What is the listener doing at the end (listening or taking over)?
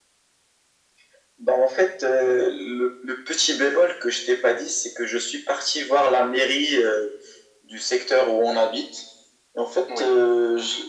listening